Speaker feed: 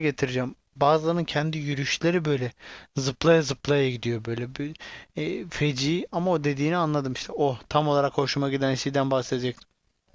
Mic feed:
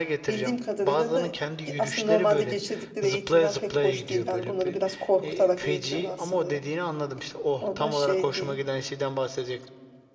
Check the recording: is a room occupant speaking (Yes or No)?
Yes